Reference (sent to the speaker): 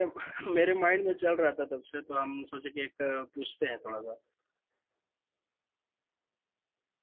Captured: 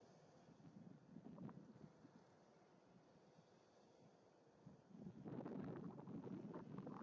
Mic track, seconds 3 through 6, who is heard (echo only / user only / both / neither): neither